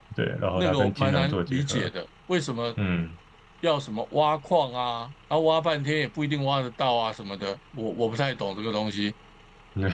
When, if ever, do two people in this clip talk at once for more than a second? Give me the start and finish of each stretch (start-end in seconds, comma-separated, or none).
0.6-1.9